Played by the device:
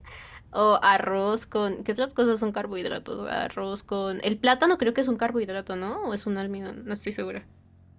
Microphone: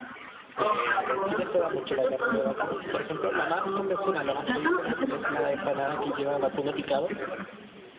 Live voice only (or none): Eh, acá en Chile se da mucho la carne de vacuno. Por ejemplo, la más convencional, la más tradicional, es la empanada que lleva vacuno picado,